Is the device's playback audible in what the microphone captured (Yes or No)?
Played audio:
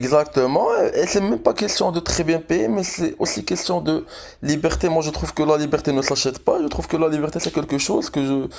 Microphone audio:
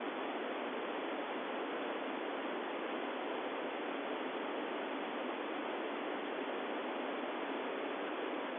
No